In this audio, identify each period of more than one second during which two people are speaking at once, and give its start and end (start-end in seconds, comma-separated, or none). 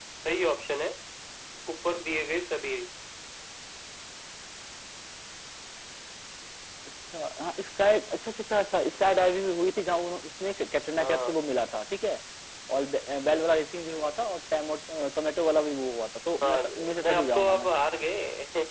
16.4-17.7